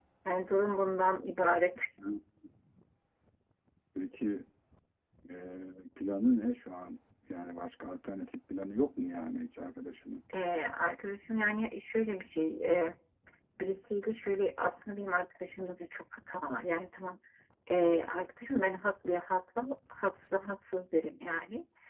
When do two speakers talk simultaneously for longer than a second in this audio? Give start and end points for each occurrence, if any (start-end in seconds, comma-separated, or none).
none